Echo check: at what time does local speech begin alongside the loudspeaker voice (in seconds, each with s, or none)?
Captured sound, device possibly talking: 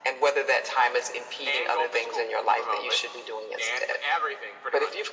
none